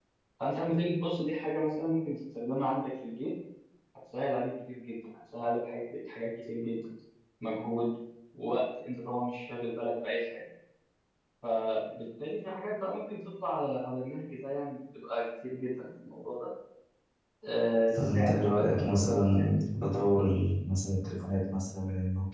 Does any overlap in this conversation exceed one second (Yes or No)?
Yes